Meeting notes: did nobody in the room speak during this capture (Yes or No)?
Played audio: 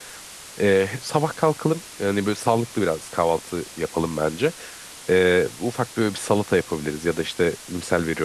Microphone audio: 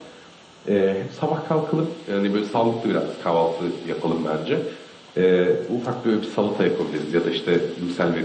Yes